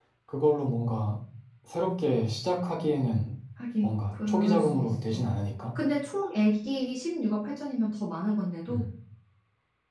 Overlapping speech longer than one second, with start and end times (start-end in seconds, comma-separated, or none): 3.8-5.2